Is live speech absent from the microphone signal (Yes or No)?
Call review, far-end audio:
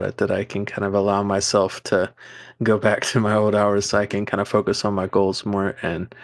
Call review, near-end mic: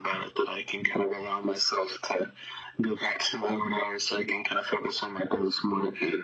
Yes